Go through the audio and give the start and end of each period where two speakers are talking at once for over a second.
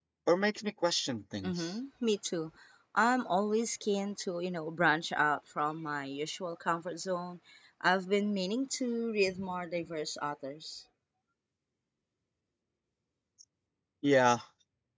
none

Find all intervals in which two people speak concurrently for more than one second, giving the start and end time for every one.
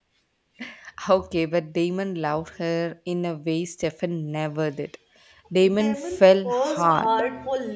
5.6-7.1

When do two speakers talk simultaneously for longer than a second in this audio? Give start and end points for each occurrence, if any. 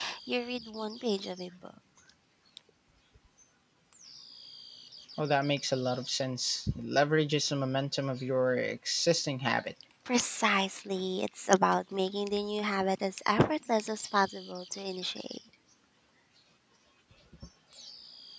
none

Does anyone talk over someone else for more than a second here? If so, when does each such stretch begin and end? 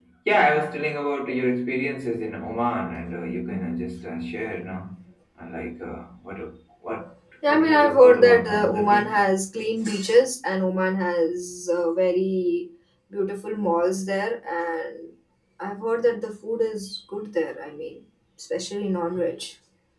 7.5-9.2

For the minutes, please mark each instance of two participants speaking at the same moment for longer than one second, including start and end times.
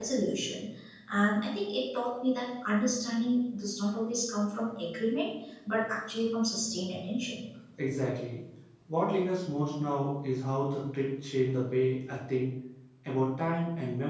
none

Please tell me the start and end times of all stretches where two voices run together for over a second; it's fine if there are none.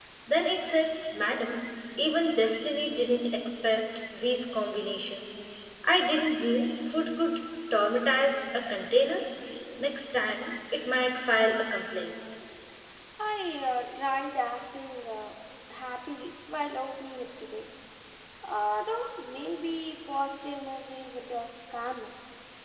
none

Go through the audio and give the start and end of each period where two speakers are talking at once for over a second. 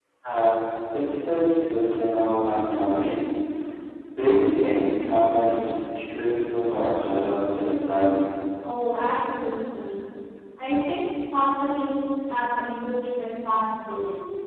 none

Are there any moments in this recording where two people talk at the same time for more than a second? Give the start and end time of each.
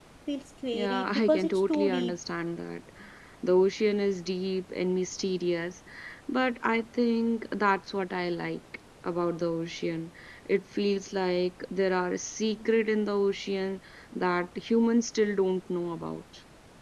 0.7-2.1

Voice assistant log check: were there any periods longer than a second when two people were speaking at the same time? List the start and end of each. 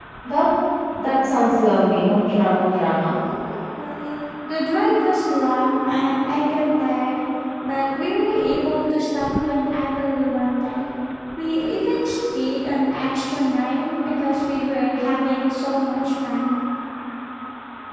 none

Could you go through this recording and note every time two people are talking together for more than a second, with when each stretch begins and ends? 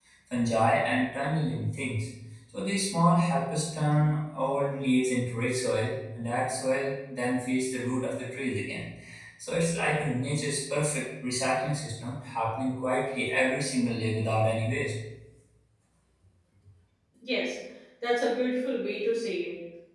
none

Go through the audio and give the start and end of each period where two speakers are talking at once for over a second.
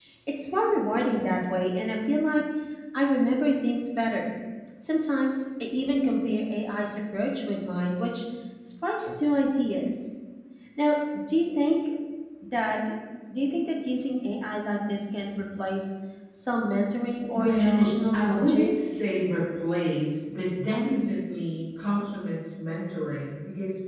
17.4-18.8

